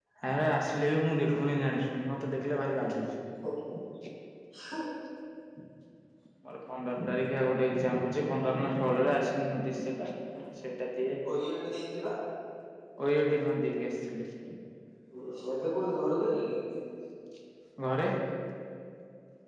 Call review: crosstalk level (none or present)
none